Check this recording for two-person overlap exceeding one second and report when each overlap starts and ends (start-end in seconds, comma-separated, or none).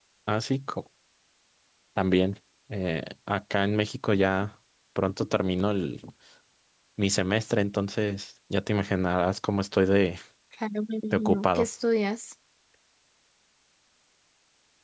none